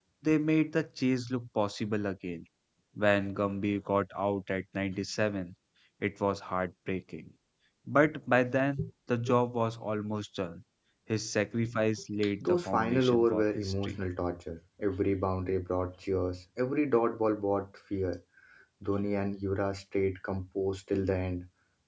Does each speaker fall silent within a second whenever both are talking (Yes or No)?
No